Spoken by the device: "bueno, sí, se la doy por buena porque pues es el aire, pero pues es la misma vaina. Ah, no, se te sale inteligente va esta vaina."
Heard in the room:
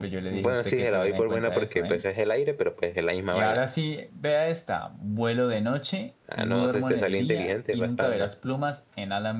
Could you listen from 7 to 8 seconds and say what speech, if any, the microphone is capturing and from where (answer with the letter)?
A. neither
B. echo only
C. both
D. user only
C